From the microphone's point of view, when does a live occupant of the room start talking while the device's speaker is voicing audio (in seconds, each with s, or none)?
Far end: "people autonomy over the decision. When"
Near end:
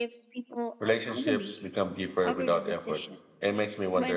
0.8 s